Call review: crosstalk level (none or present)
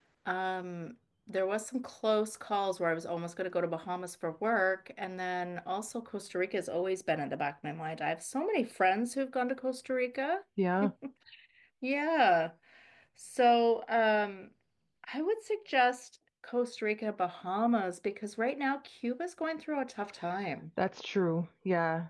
none